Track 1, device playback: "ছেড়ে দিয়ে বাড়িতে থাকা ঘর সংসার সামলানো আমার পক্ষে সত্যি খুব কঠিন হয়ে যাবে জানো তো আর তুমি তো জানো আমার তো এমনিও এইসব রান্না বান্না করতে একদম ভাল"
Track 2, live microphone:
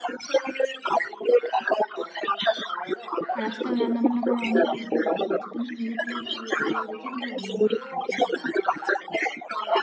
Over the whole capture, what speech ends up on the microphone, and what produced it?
both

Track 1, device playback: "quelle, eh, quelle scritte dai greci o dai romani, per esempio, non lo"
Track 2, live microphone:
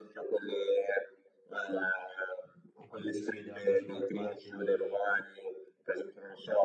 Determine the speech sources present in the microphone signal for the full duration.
both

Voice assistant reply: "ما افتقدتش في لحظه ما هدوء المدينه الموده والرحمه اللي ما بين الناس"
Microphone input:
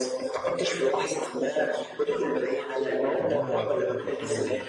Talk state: both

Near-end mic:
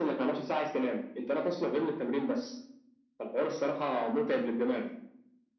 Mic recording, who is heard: echo only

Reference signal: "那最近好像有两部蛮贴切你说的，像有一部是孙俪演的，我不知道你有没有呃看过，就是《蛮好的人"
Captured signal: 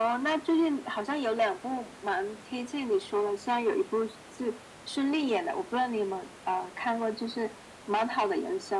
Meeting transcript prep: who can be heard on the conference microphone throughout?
echo only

